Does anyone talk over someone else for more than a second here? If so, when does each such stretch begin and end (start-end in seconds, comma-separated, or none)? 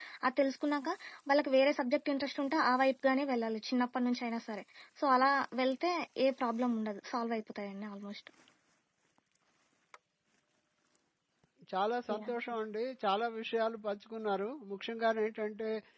none